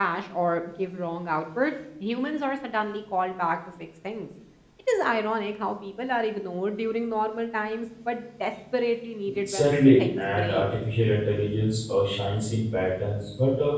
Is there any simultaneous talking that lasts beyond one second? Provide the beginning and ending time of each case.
9.3-10.7

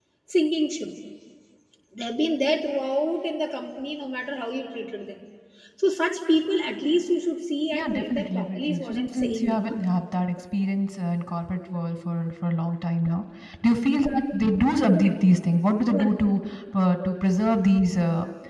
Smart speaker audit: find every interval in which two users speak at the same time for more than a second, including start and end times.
7.7-9.7

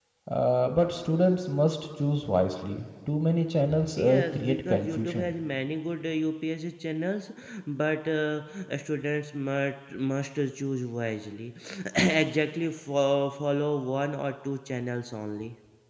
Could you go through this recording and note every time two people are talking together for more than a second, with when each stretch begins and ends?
3.9-5.3

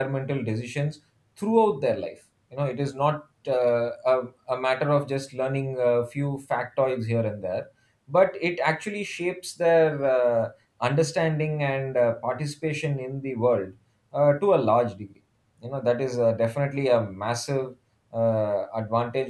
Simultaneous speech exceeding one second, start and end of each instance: none

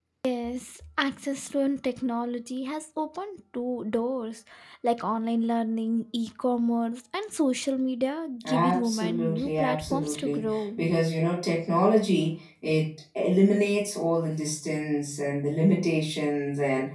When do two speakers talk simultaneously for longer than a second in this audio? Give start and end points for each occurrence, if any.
8.4-10.8

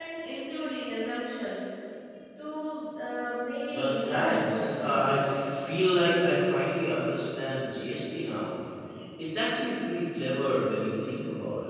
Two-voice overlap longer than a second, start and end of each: 3.7-5.3

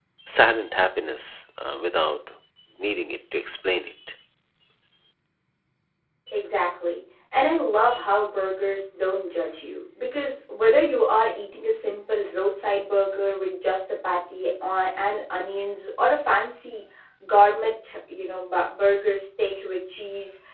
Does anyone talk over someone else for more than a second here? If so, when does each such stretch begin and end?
none

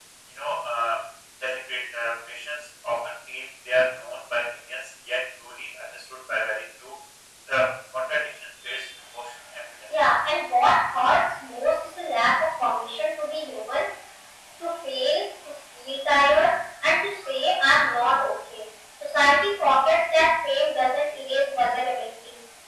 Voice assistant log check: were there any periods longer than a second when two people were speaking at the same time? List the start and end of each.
none

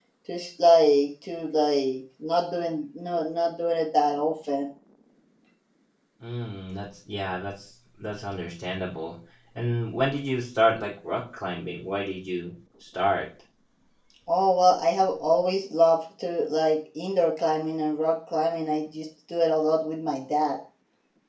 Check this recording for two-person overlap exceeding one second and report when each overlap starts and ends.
none

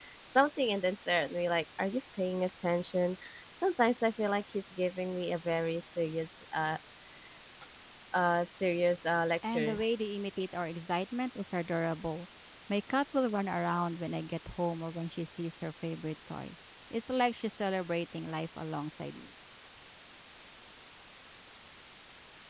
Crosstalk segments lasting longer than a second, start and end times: none

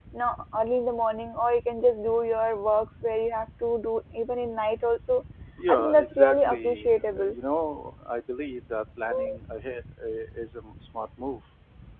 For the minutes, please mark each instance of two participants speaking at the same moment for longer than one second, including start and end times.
5.7-7.4

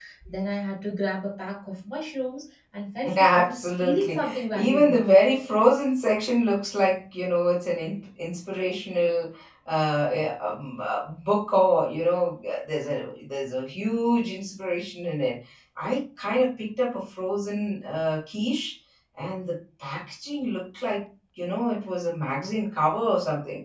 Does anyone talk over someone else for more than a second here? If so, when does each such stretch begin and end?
3.1-5.0

